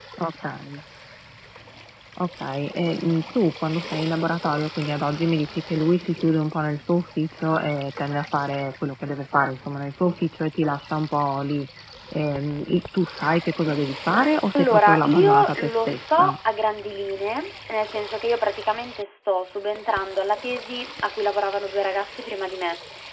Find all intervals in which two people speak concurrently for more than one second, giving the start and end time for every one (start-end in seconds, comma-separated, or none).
14.6-16.4